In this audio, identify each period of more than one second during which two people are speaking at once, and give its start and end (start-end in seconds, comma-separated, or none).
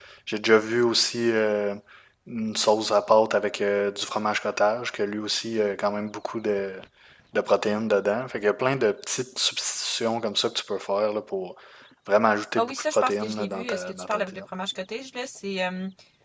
12.6-14.4